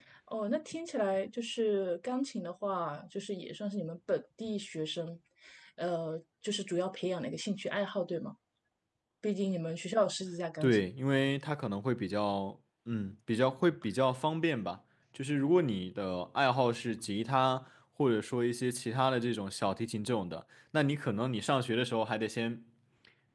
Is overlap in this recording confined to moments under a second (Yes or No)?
Yes